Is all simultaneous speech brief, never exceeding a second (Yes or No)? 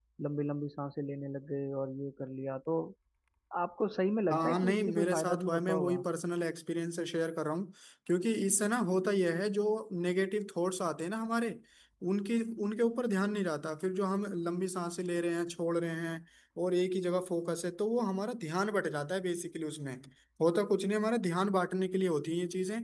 No